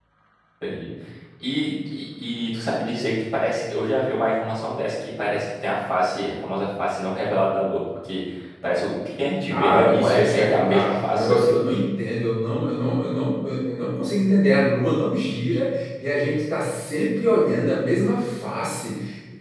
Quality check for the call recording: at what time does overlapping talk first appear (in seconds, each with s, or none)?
9.5 s